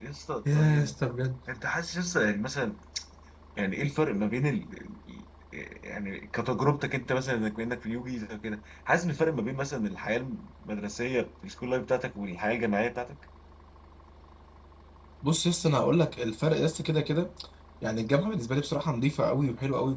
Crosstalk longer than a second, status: none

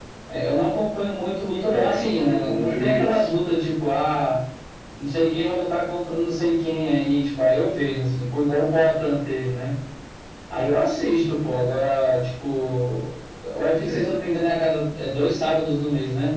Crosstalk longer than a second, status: present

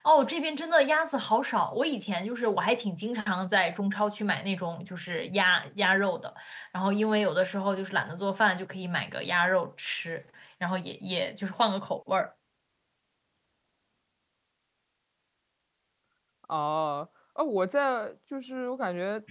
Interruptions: none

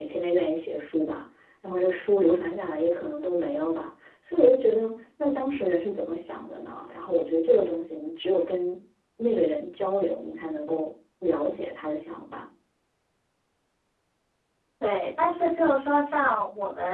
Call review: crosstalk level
none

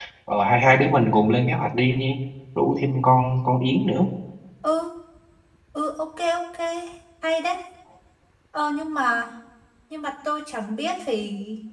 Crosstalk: none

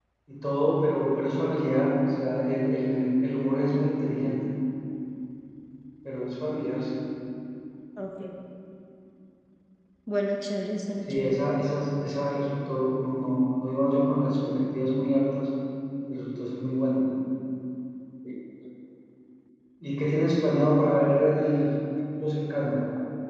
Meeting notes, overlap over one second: none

